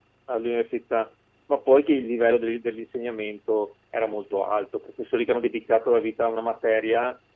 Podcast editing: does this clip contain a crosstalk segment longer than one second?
No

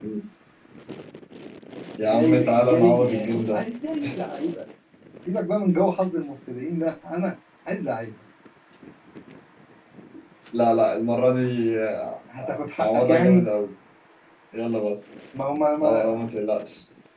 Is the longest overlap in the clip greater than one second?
Yes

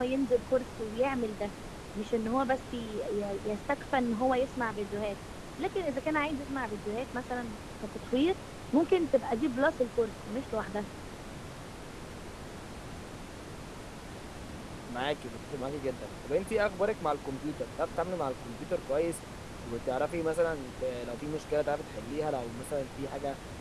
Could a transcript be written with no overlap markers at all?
Yes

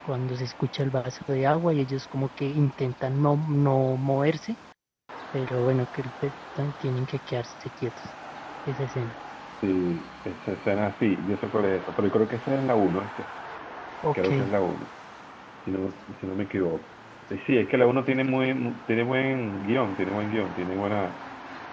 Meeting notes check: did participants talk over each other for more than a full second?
No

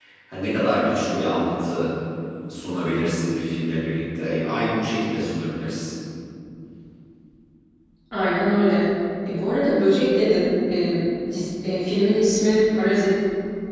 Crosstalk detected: No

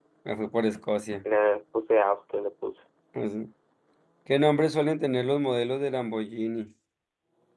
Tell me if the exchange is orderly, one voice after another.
Yes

